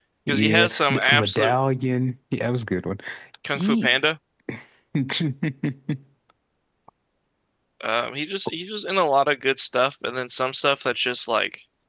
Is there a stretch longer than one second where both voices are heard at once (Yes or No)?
Yes